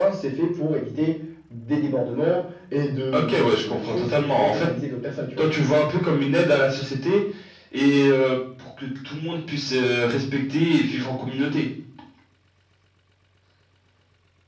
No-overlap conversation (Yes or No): No